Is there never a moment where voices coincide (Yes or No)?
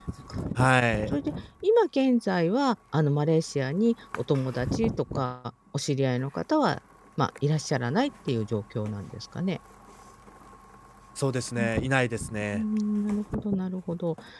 Yes